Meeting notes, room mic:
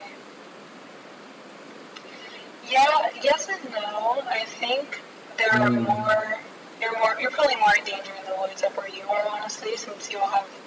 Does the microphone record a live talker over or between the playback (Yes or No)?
Yes